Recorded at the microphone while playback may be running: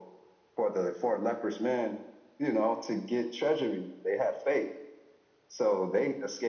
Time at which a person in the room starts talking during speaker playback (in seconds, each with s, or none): none